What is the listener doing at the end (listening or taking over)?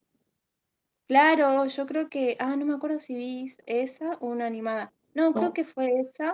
listening